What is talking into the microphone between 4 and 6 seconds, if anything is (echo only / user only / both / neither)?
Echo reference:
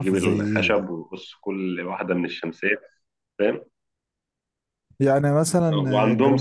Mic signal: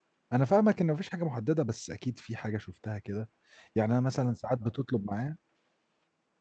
user only